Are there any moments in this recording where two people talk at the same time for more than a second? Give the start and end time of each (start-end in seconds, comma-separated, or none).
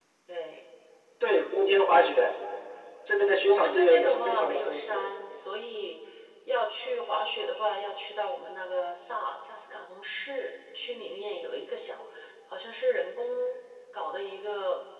3.1-5.1